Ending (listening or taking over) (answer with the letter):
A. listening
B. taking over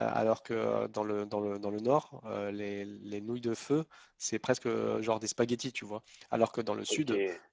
A